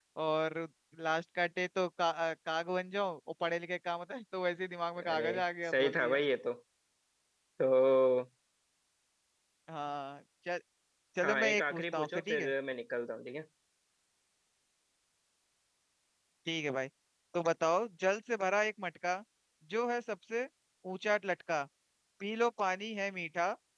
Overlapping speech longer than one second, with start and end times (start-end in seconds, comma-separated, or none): 11.2-12.5